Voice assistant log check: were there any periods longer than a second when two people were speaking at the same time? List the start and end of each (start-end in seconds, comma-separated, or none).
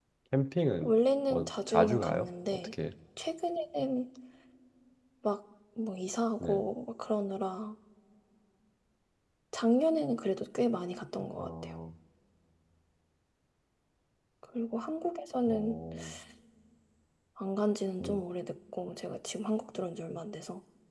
1.3-2.7